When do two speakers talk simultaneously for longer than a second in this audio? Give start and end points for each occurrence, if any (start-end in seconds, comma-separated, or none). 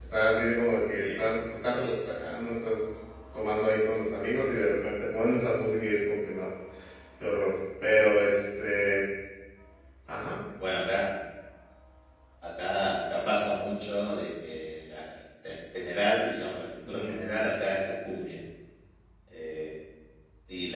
none